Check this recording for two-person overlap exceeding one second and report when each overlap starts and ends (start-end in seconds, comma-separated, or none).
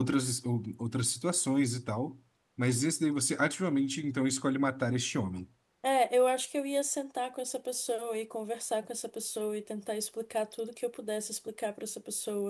none